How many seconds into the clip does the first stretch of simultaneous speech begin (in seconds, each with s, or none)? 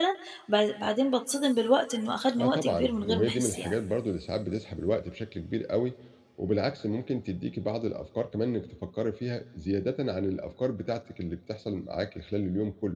2.3 s